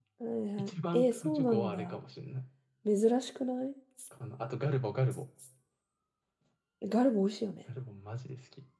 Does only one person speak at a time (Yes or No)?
No